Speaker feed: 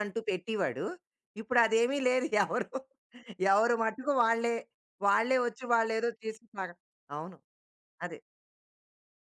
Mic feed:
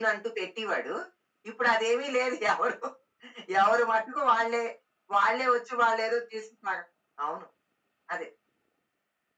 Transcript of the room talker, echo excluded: none

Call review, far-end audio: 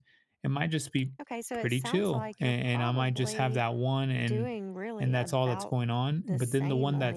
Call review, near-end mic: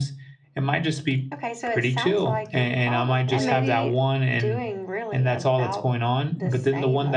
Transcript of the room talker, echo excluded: and maybe

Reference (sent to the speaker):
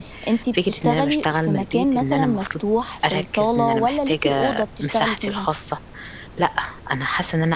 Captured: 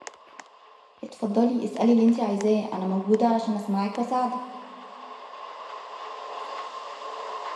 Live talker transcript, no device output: اتفضلي اسألي اللي انتي عايزاه انا موجودة علشان اسمعك واساعدك

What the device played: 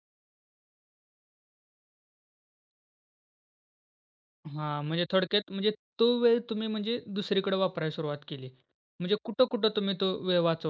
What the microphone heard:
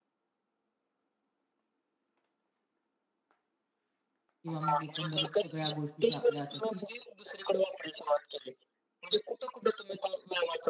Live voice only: किंवा मग एकंदरीत सगळ्या गोष्टी ज्या आपल्या असतात, की

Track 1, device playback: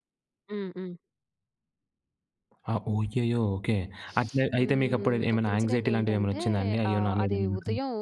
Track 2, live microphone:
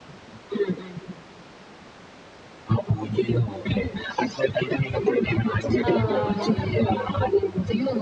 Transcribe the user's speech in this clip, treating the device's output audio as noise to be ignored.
ఆహ్, హ్మ్.

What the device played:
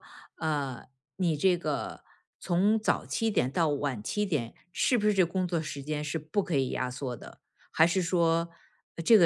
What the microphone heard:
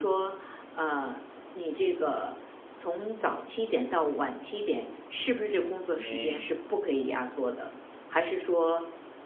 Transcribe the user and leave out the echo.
嗯，

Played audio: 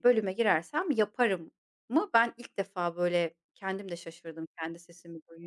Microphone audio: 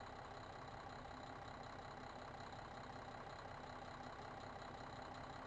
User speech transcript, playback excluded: none

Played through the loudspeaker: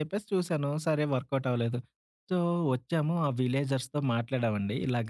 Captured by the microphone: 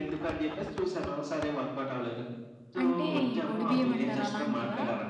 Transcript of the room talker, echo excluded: అంటే ఈ ఒడిబియ్యం అంటారు అలాంటివా?

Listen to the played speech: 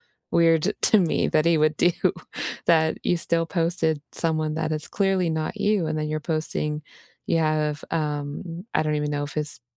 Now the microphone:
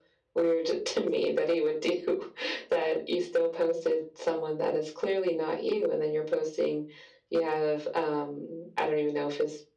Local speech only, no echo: none

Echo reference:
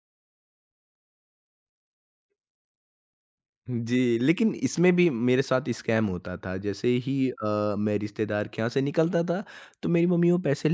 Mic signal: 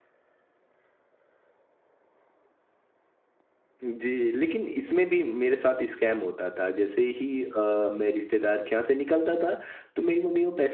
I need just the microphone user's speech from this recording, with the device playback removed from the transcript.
none

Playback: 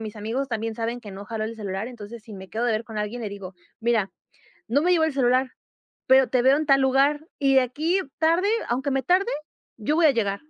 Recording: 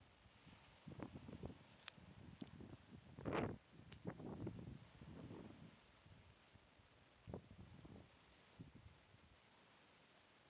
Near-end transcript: none

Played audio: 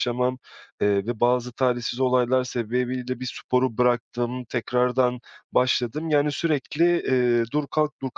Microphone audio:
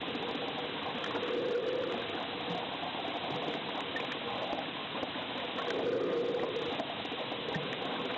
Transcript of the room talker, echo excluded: none

